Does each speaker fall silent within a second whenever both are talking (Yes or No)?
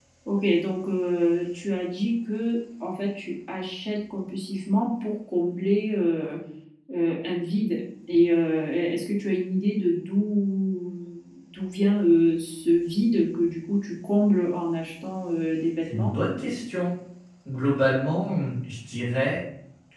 Yes